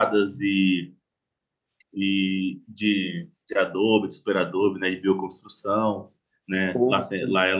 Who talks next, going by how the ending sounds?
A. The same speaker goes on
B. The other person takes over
A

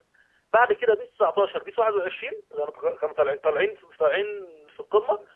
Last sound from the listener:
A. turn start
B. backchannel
A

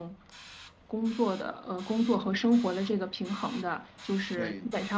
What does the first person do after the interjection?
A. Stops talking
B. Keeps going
B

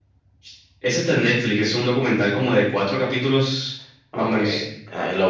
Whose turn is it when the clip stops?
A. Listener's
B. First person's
A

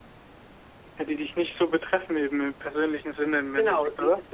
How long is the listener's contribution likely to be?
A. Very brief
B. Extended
B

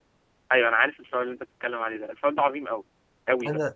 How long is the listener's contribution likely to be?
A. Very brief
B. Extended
A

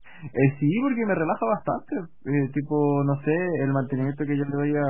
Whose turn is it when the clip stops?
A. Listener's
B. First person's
B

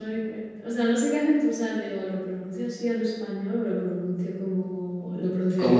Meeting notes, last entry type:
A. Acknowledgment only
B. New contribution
B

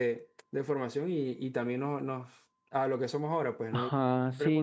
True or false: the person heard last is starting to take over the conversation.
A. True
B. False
A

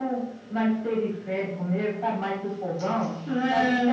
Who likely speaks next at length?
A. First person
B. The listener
A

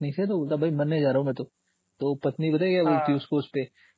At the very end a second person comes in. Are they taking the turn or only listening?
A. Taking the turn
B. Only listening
B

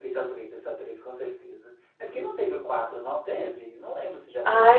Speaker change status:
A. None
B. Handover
B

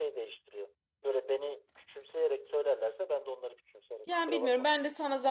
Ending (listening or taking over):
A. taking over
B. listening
A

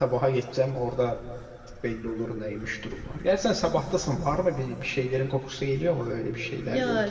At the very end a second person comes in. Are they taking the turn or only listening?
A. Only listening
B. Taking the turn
B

